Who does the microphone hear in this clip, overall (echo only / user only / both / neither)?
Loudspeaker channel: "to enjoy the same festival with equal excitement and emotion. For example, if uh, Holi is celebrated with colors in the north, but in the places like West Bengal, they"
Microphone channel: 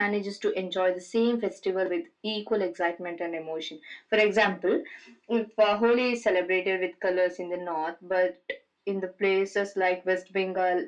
echo only